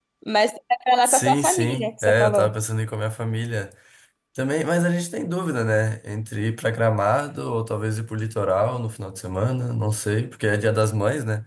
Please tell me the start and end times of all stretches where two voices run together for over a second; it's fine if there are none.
1.0-2.5

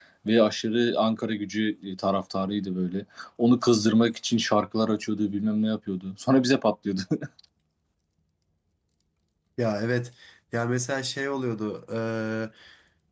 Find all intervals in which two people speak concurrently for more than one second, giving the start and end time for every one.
none

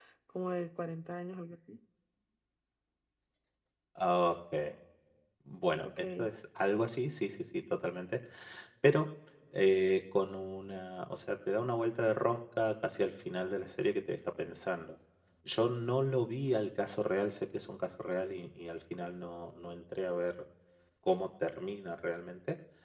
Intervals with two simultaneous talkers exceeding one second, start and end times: none

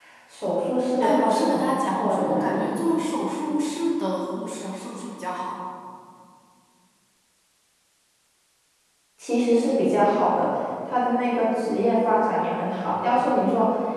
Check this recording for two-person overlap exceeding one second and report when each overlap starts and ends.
1.0-2.6

